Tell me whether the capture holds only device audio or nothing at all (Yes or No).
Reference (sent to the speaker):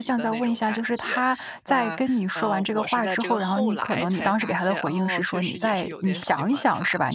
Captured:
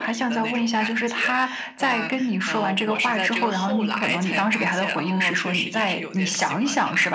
Yes